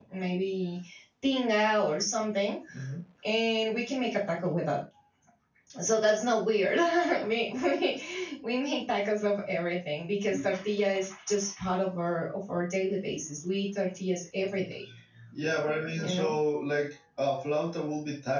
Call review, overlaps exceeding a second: none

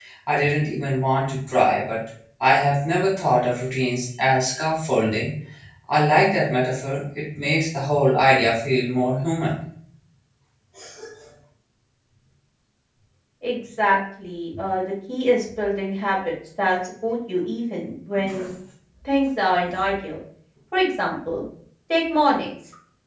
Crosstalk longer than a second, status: none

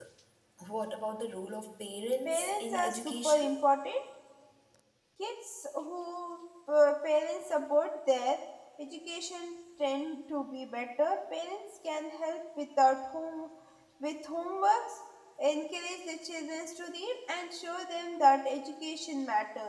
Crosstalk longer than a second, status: present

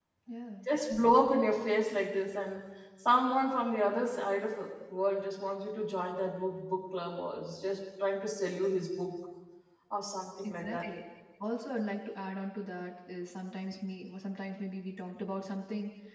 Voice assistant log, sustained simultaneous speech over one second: none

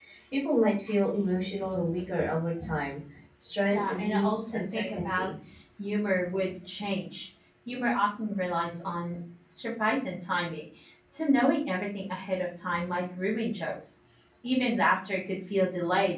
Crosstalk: present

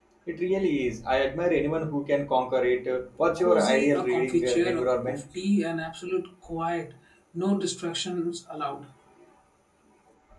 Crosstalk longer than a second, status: present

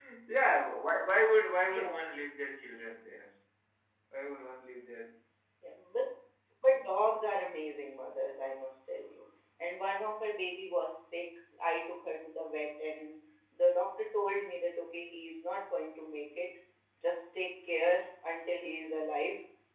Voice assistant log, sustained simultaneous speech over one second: none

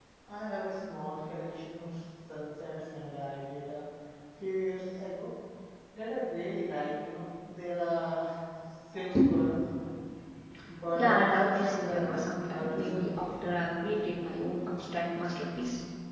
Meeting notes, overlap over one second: present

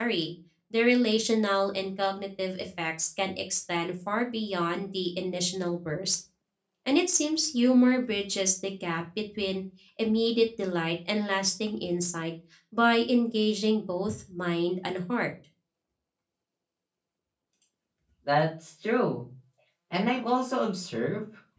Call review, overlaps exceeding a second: none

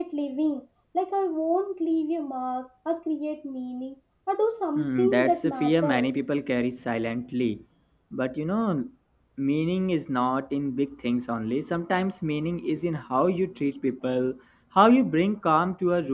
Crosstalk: present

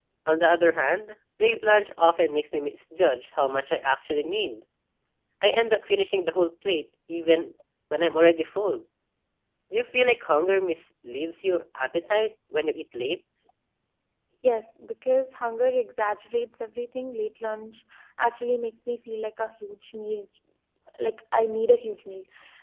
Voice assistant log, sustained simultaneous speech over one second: none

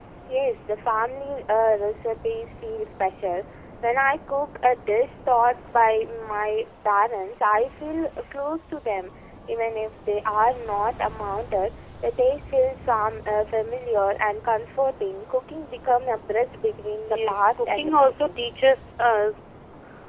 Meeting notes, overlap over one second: present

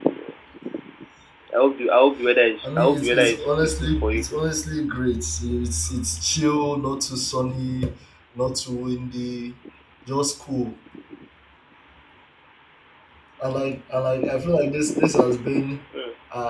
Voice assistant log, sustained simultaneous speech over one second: present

